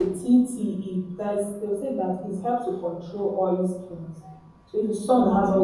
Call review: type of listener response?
listening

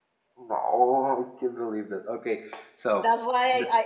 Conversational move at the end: taking over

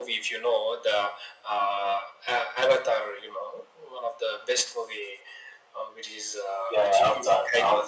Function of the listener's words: taking over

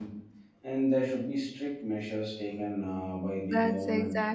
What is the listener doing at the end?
taking over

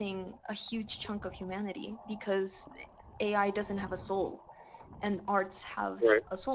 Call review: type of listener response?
listening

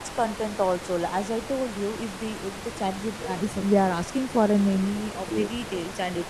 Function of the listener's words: listening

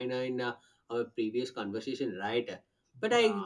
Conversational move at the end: listening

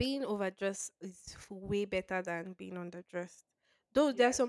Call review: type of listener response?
listening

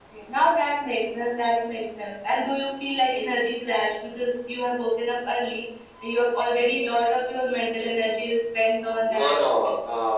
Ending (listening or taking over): taking over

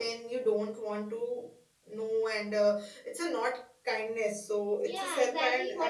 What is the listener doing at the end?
taking over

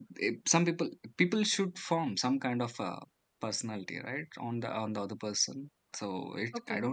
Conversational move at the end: taking over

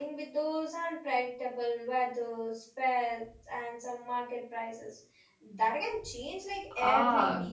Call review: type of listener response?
taking over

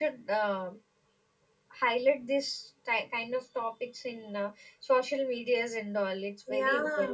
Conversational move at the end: taking over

